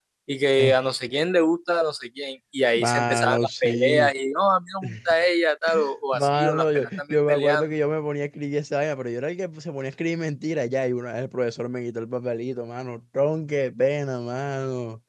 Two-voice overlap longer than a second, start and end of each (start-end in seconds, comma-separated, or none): 2.8-4.1, 6.1-7.7